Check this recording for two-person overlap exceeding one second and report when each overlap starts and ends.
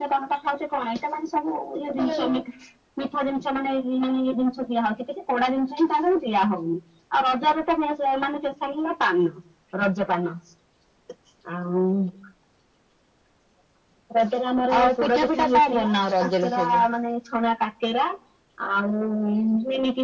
14.8-16.8

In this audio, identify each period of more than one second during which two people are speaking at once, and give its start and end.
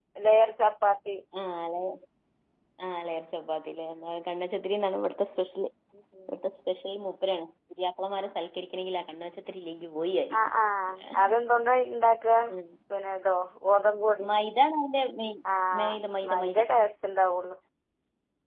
none

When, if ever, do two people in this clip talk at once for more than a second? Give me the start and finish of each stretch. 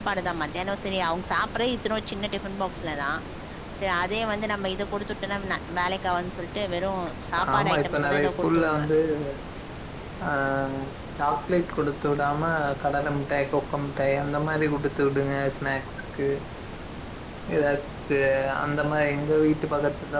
7.5-8.8

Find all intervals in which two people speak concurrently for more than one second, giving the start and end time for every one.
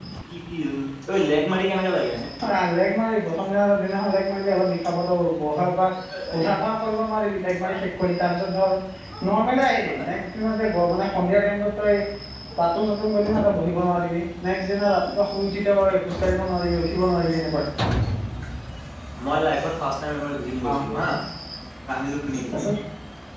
none

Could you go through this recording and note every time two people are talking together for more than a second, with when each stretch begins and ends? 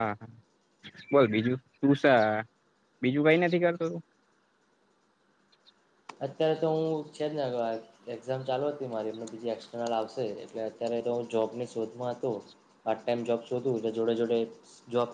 none

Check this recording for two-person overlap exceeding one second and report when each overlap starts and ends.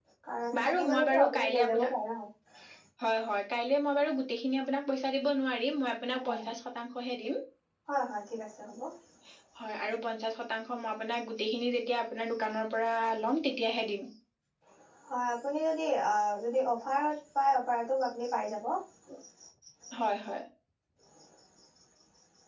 0.6-1.9

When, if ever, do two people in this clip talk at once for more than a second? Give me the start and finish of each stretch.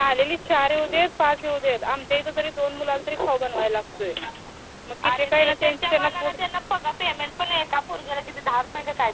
5.1-6.3

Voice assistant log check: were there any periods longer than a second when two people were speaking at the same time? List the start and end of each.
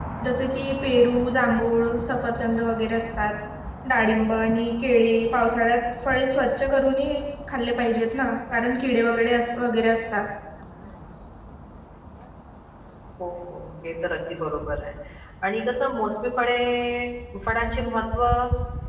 none

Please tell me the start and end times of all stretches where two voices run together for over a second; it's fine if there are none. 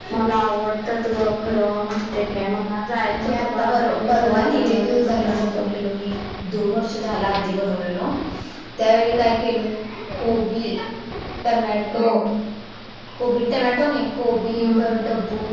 3.2-5.8

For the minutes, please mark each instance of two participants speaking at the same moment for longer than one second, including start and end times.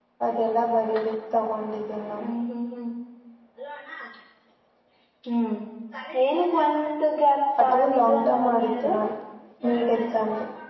7.6-8.8

